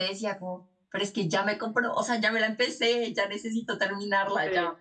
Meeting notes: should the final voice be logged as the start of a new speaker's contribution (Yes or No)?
No